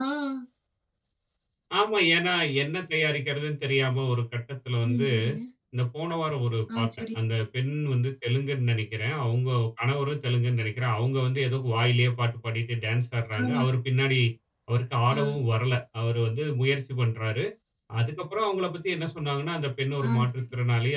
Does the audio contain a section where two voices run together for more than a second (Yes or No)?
No